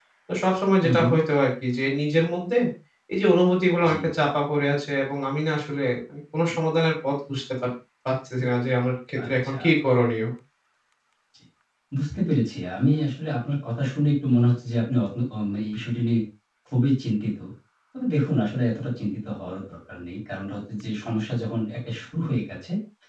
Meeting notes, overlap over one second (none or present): none